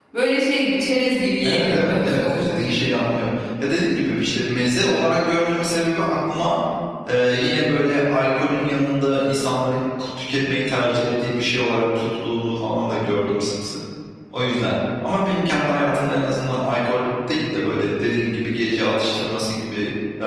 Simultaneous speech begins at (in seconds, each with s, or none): 1.4 s